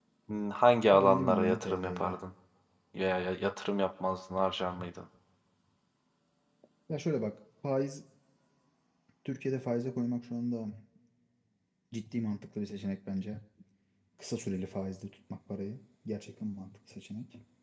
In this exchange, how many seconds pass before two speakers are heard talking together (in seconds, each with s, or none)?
0.9 s